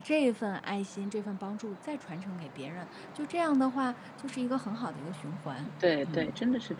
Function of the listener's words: taking over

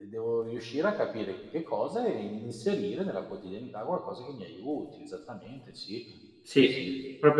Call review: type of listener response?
taking over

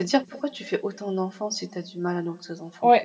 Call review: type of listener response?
taking over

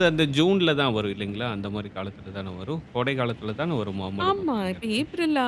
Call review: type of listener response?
taking over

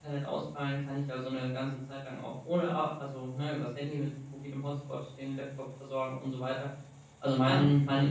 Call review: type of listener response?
listening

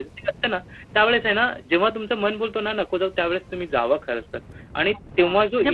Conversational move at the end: taking over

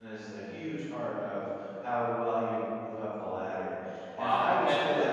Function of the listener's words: taking over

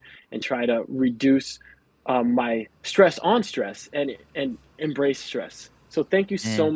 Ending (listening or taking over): listening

